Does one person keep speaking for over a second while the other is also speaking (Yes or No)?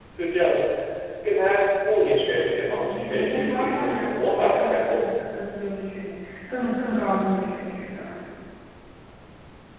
Yes